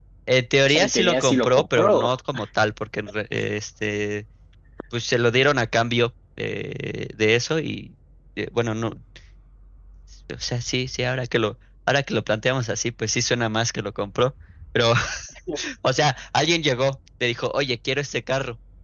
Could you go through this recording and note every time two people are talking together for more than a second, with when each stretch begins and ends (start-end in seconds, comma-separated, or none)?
0.7-2.1